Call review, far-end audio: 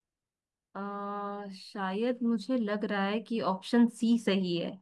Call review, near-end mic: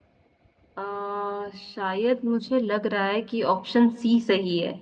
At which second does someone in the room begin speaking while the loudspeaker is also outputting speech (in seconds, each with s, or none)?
none